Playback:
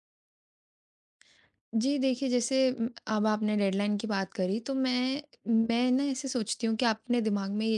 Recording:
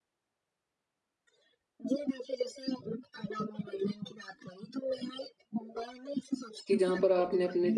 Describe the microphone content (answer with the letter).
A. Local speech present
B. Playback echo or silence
A